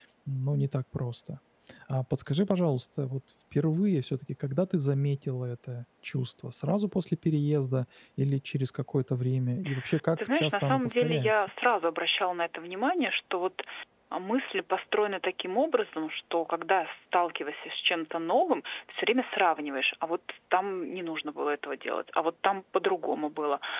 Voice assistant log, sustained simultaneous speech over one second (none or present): present